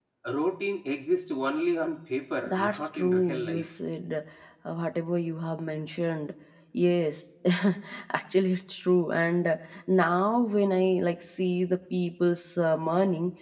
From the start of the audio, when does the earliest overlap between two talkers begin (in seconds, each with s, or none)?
2.4 s